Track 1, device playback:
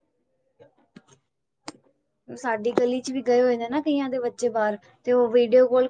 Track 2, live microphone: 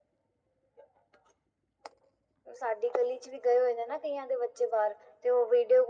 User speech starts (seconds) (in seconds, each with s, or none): none